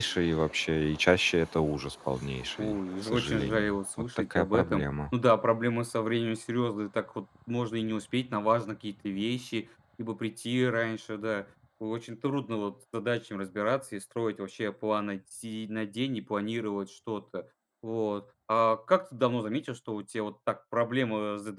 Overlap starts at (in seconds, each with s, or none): 2.6 s